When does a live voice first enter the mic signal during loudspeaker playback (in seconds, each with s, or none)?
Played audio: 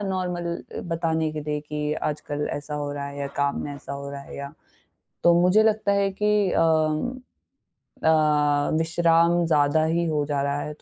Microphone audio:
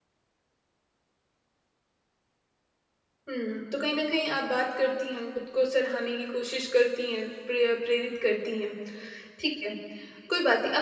3.3 s